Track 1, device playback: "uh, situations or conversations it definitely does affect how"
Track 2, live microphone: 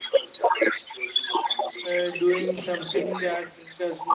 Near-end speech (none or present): present